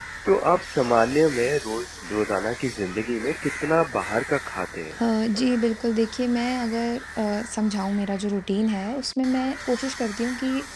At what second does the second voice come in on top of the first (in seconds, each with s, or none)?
none